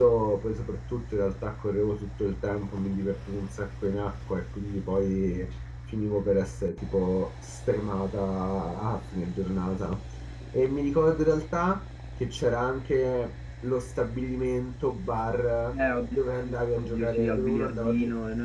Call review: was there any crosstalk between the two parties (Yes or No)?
Yes